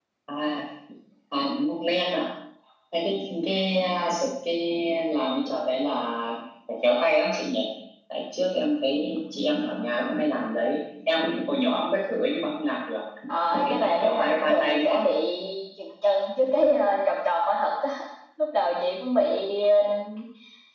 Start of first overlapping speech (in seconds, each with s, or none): 13.5 s